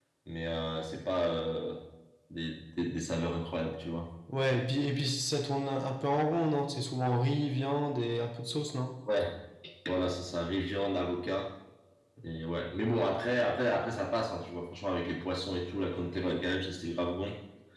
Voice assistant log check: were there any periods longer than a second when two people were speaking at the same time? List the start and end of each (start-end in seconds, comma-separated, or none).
none